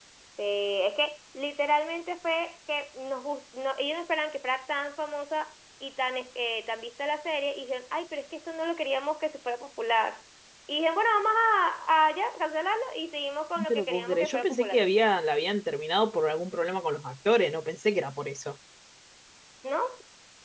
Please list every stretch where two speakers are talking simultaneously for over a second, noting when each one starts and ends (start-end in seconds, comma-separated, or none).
13.6-14.8